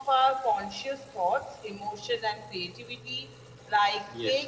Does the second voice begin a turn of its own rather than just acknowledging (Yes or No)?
No